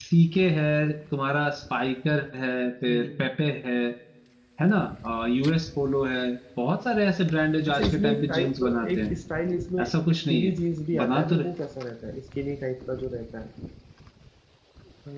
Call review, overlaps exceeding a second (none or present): present